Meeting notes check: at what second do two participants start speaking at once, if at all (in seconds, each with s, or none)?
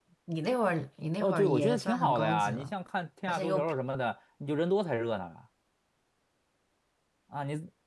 1.2 s